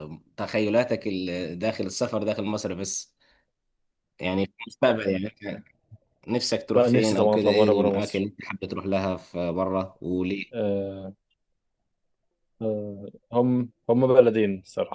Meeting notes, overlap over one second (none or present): present